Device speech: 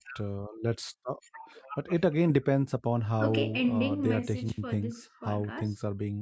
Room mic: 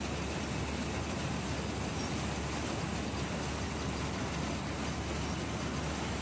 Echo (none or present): none